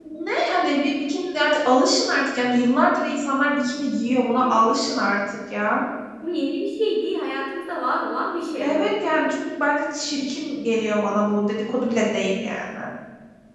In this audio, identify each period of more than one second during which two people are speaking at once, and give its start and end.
none

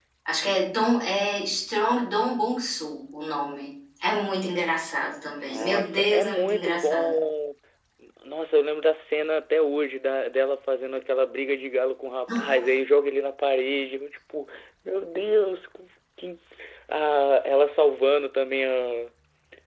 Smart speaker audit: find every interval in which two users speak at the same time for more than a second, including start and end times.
5.4-7.2

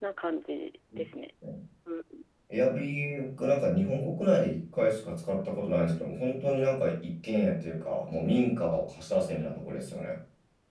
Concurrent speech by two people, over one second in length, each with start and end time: none

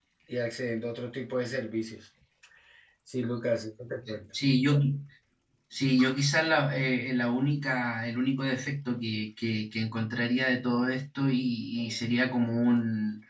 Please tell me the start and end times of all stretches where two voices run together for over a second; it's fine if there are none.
none

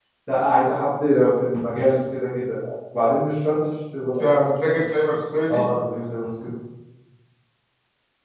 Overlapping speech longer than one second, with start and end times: none

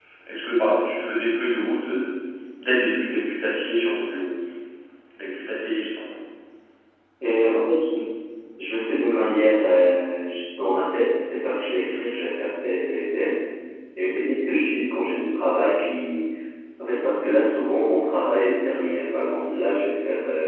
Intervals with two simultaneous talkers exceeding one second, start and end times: none

